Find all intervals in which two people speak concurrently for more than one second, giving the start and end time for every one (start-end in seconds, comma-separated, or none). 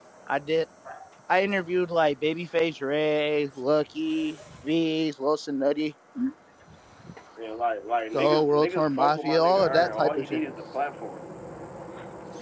8.1-10.4